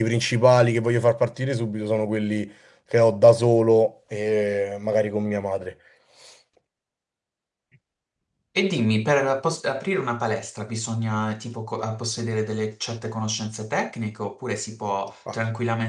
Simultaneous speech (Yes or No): No